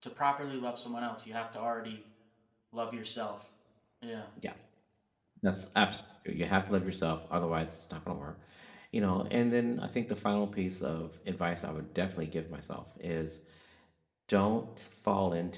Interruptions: none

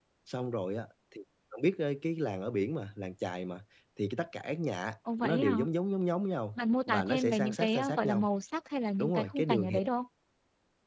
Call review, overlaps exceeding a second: present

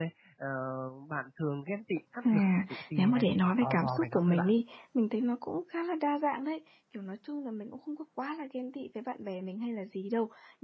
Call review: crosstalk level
present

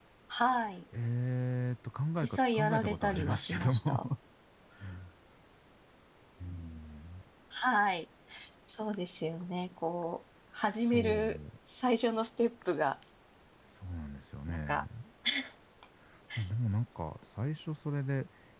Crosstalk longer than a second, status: present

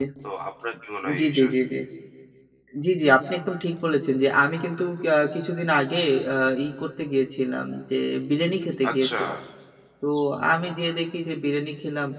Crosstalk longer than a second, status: none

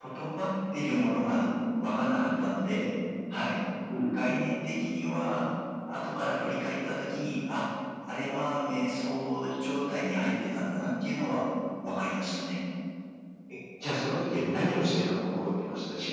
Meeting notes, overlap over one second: none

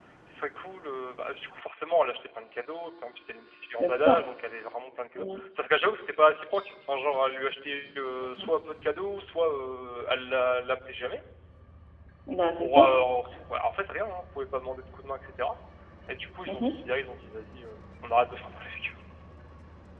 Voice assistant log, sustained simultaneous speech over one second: none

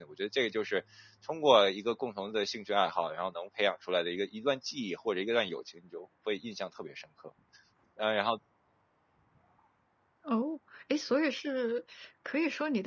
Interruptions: none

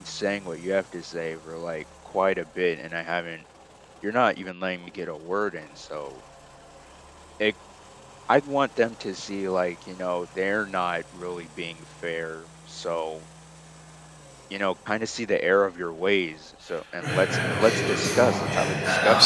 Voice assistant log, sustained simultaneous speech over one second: present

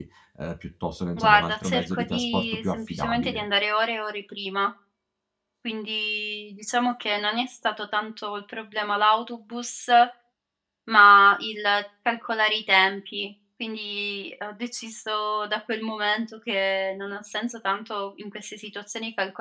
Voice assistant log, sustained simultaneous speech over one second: present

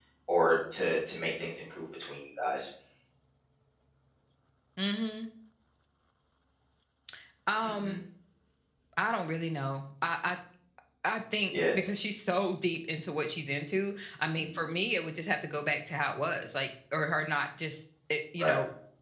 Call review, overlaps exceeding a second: none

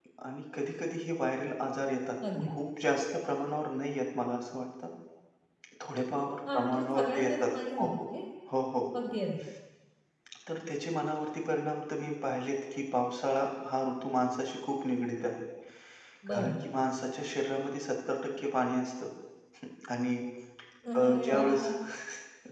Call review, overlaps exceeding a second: present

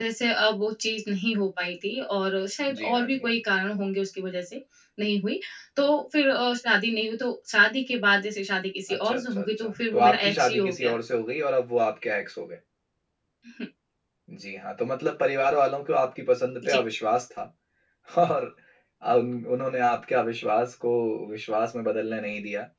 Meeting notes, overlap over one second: present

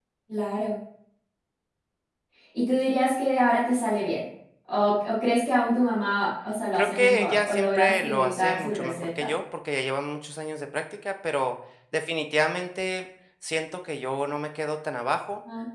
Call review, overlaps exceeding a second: present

